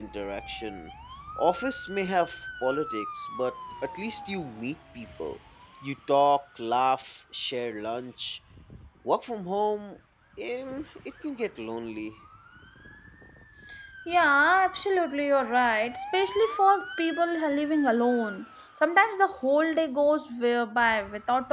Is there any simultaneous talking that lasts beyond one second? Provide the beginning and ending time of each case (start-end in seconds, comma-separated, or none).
none